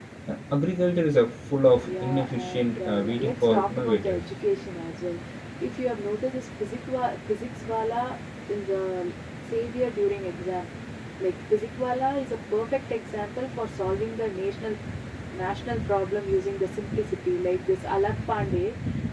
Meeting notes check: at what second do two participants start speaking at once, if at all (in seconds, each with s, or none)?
1.8 s